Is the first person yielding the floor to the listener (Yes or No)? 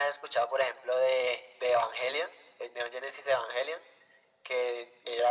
No